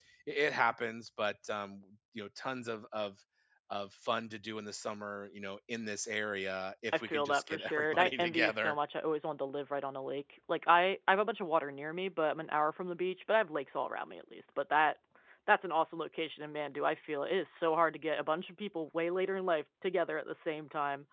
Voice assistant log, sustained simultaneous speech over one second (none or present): present